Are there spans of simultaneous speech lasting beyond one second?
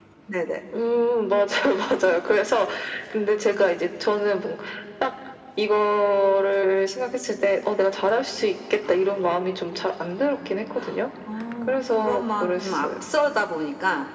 Yes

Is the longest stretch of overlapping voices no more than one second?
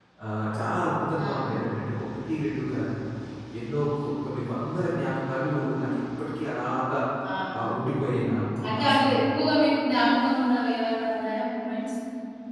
Yes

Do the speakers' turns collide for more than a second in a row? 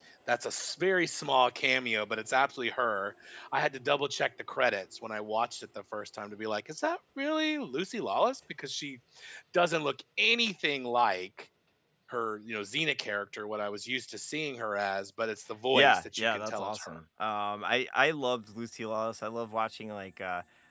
Yes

